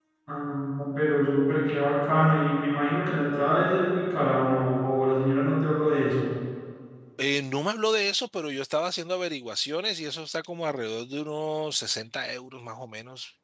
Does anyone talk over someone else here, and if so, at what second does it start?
none

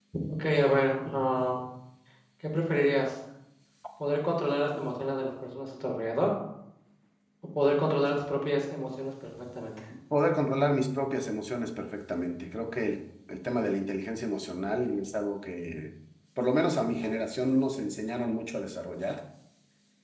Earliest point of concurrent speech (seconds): none

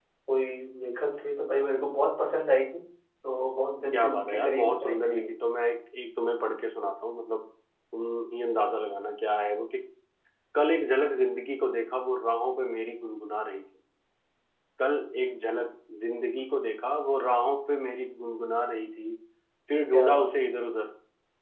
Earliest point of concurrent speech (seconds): 3.9 s

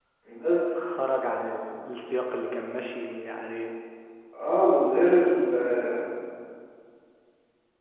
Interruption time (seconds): none

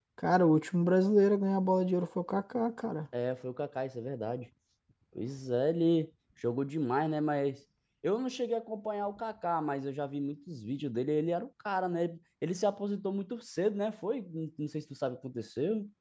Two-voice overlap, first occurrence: none

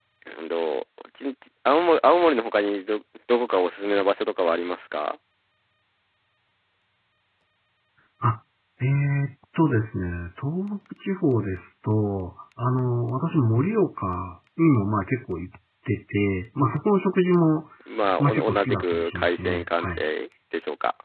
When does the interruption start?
18.2 s

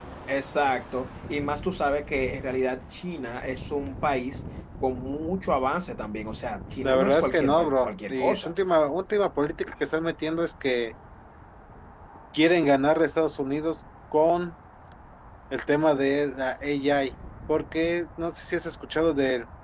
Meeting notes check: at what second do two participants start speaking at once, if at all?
6.8 s

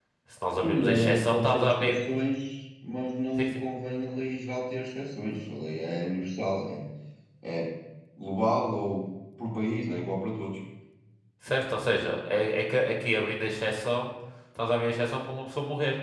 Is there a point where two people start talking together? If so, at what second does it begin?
0.6 s

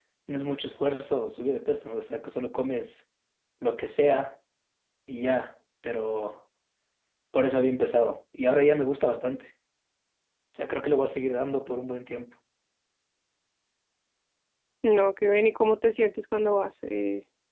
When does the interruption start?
none

